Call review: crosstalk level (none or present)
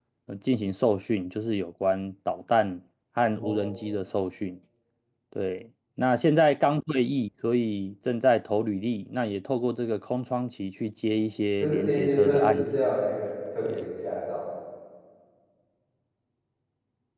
present